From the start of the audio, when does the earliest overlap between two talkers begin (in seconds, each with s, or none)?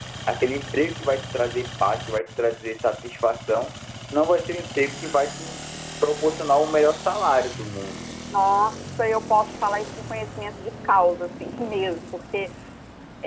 none